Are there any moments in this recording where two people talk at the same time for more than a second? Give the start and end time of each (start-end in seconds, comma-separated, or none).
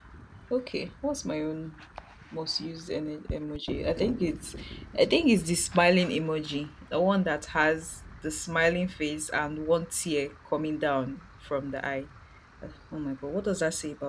none